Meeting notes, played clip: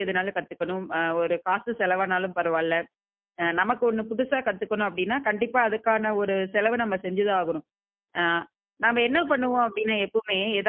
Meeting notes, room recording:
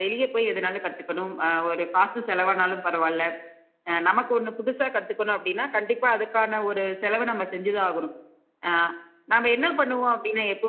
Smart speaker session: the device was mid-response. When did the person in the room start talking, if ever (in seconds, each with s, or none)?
none